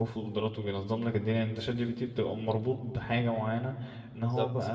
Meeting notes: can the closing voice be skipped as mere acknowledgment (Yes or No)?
Yes